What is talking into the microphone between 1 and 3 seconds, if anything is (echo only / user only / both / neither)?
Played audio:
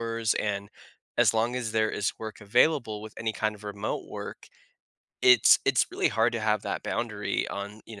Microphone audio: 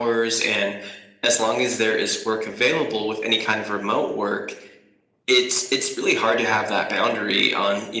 echo only